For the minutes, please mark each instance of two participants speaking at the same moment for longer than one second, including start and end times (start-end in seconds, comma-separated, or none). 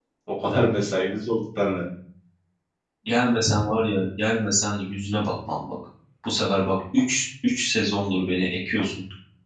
none